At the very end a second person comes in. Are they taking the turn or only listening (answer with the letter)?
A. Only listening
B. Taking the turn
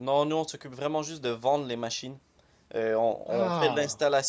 A